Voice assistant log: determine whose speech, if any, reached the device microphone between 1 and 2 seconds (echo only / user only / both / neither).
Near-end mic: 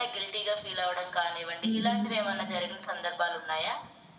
both